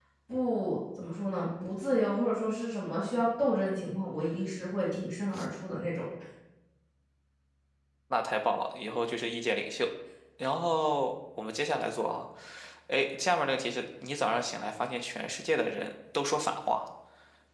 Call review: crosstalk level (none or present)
none